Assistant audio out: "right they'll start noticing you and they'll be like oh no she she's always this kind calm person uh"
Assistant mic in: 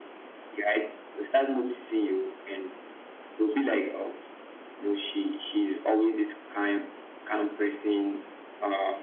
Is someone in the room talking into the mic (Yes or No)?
No